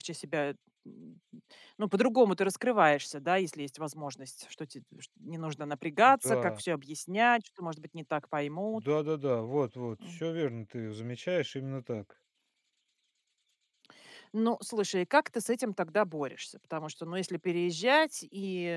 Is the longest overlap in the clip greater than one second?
No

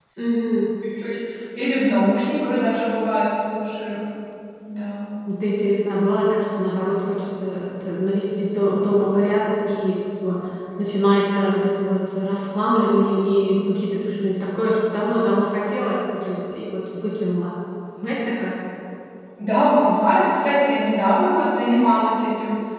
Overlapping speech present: No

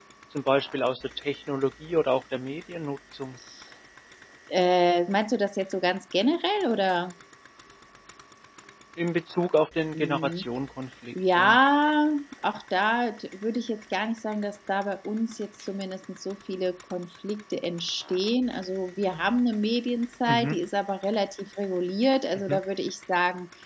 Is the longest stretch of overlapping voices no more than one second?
Yes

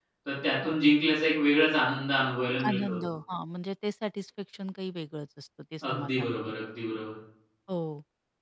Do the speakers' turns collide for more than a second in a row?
No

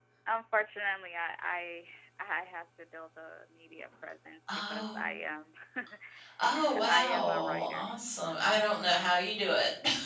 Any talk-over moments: Yes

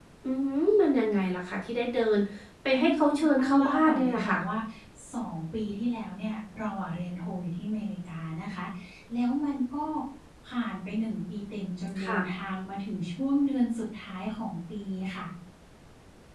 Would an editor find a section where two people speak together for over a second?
Yes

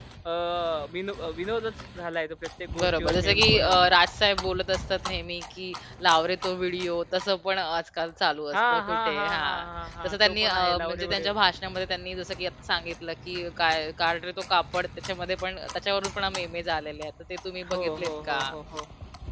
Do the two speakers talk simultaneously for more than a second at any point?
Yes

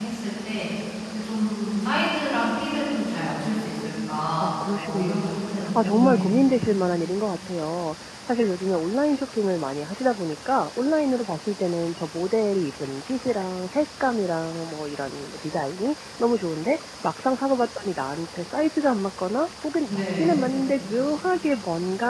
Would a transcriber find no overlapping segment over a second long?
No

